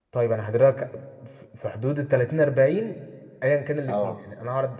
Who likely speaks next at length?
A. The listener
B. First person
B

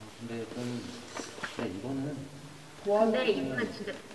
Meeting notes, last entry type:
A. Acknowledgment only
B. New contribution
B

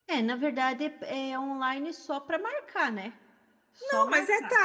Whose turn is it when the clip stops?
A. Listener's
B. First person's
A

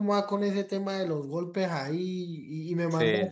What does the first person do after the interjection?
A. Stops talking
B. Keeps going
B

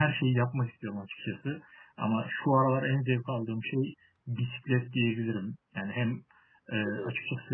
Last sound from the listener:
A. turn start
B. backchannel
B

